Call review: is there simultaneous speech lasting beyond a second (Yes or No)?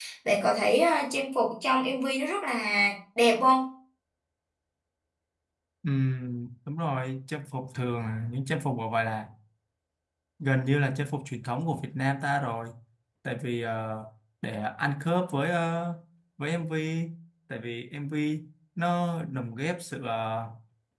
No